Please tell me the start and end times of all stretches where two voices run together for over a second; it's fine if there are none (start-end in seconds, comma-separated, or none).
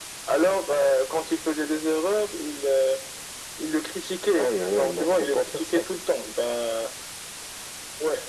4.4-5.9